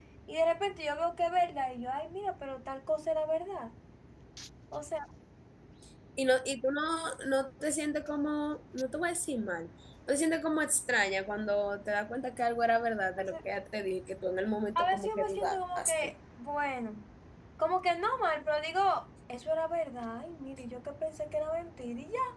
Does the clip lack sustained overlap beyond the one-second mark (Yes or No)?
No